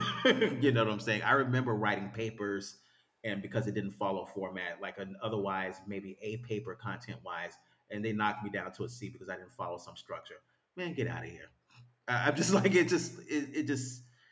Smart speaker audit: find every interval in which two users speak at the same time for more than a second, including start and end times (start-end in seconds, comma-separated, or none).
none